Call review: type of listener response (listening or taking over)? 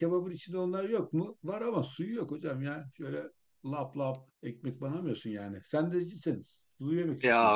taking over